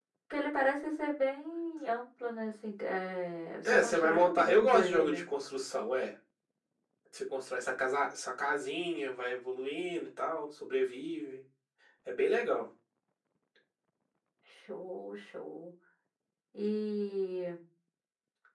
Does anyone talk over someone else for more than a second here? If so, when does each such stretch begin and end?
3.7-5.2

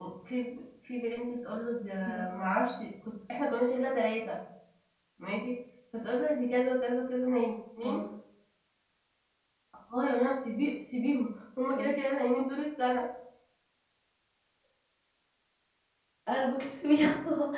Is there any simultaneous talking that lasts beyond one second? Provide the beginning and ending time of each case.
none

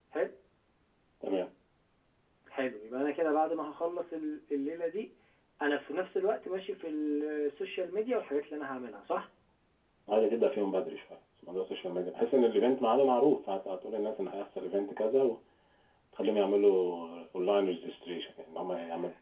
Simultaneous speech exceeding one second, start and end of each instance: none

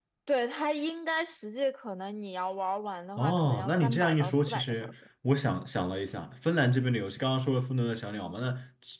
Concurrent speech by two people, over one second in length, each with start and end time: 3.2-4.9

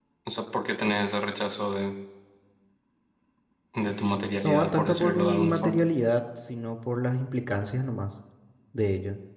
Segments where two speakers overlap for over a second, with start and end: 4.4-5.8

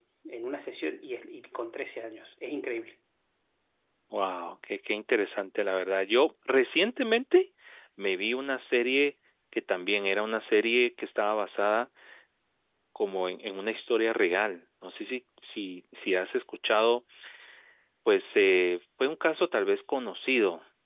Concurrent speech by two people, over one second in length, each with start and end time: none

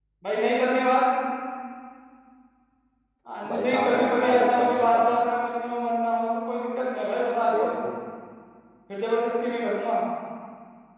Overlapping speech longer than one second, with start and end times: 3.5-5.2

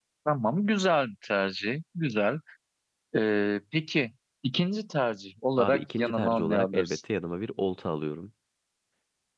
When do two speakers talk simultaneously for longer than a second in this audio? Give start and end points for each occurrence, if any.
5.6-7.0

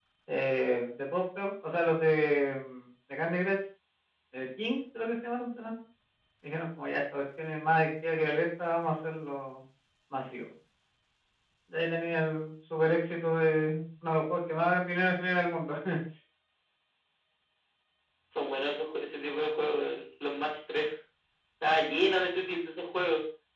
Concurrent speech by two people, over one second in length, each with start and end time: none

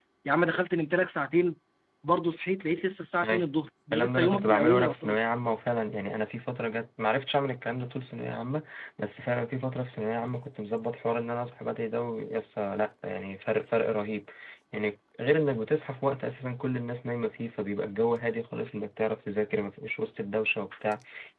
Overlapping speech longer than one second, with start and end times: 3.9-5.2

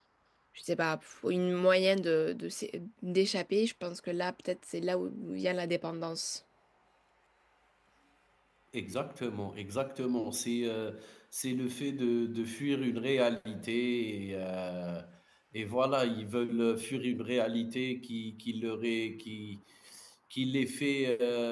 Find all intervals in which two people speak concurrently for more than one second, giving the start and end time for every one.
none

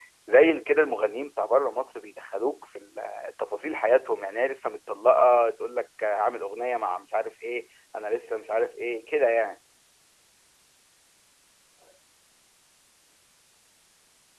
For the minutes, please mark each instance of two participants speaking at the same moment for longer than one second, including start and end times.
none

